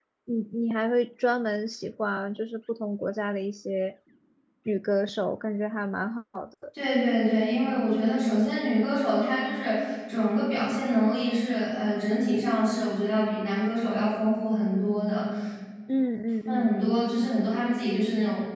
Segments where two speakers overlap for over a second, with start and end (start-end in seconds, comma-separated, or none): none